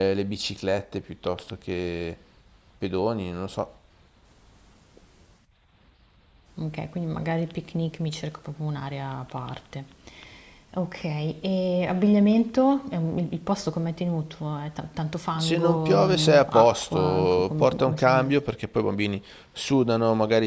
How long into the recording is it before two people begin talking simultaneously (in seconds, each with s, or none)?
15.3 s